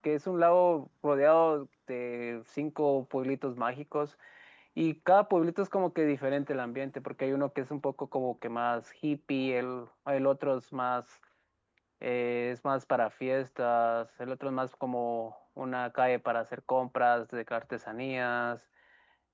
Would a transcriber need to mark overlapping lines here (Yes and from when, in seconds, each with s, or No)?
No